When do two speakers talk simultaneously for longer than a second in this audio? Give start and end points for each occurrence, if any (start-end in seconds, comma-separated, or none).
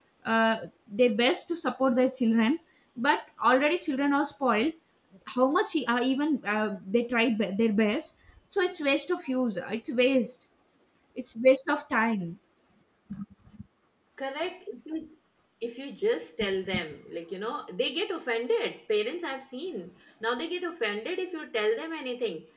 none